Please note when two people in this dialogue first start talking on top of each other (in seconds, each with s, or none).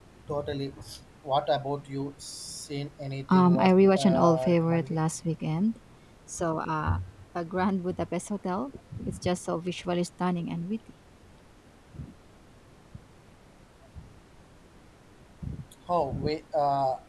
3.3 s